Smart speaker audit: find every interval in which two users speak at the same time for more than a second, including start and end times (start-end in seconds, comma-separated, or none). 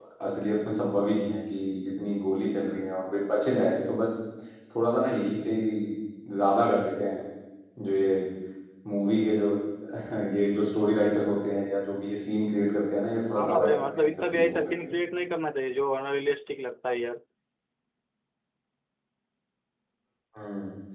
13.3-14.9